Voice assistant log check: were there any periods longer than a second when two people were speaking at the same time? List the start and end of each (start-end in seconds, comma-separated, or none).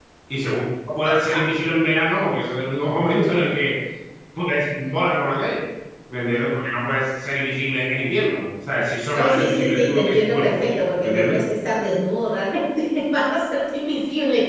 9.2-11.3